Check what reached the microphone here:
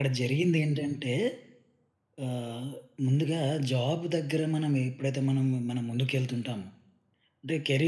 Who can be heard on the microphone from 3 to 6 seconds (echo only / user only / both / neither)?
user only